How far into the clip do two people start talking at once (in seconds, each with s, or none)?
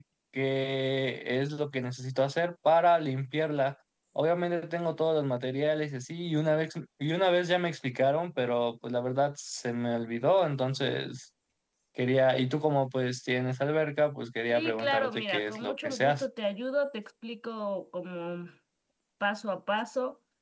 14.5 s